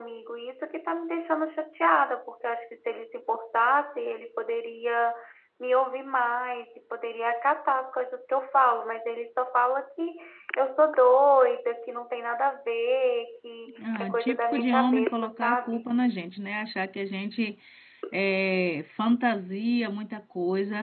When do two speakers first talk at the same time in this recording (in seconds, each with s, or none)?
13.8 s